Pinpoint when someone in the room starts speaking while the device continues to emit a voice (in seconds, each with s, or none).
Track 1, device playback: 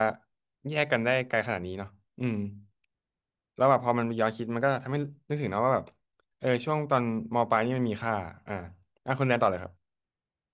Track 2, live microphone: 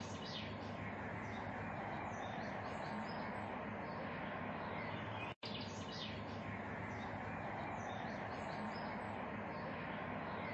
none